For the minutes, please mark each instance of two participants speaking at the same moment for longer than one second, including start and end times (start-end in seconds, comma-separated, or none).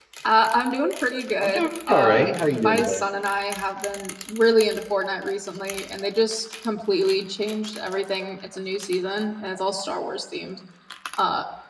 1.4-3.0